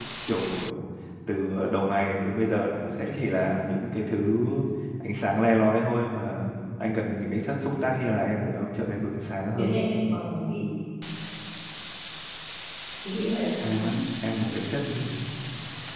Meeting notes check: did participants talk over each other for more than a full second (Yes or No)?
No